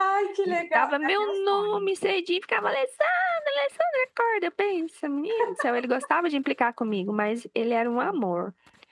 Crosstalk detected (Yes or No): Yes